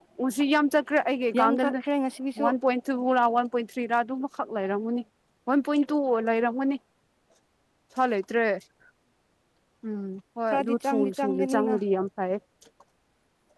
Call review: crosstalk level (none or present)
present